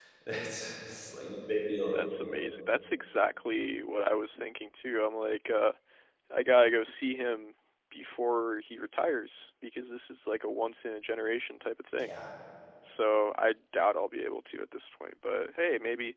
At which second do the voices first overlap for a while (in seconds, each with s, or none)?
none